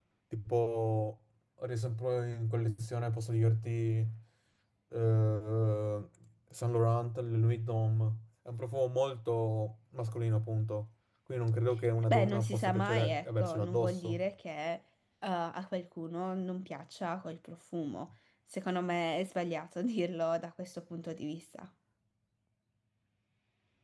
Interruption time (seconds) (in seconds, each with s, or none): 12.1 s